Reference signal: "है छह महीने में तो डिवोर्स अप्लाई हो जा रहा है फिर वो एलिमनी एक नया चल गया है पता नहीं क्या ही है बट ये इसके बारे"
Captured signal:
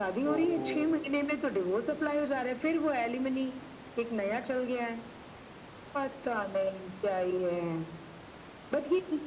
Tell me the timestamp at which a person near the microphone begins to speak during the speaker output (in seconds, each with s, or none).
0.3 s